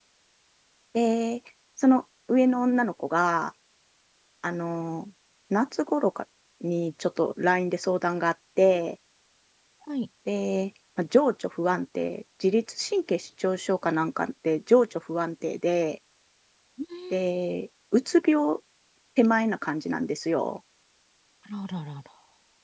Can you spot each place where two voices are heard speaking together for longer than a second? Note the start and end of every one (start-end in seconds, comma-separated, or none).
none